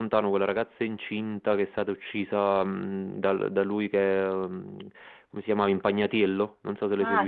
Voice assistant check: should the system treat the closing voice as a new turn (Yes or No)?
Yes